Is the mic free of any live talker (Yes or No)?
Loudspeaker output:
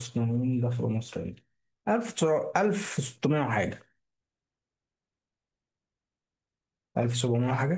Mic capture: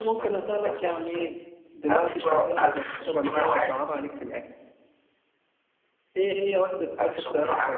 No